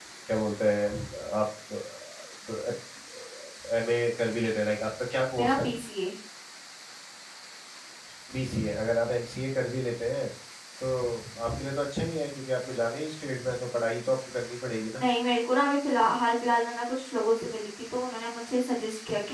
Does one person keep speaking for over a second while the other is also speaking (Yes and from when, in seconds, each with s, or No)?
No